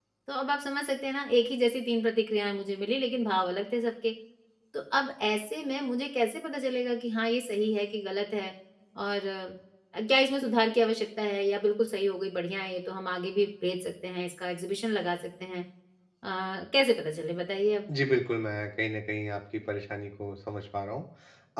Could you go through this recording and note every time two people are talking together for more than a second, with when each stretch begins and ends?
none

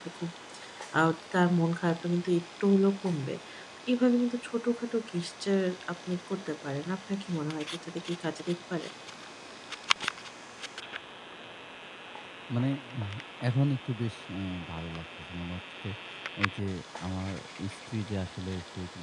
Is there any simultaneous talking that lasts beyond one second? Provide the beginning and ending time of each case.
none

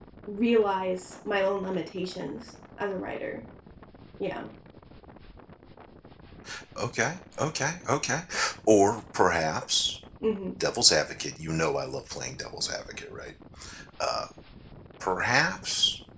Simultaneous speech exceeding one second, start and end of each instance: none

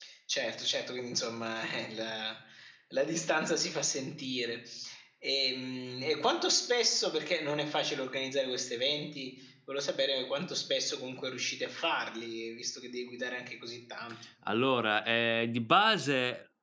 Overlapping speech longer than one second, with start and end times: none

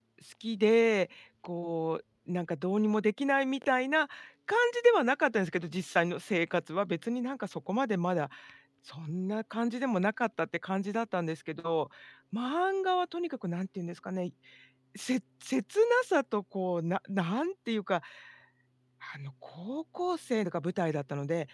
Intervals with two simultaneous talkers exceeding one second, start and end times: none

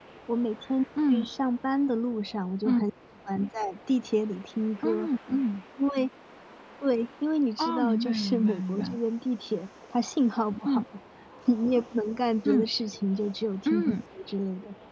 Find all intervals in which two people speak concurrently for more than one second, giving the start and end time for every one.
7.6-9.0

